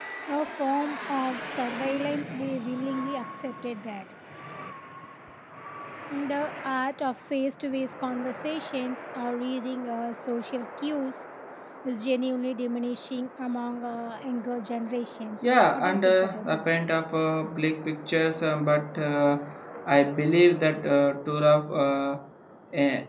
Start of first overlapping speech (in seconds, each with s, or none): 15.4 s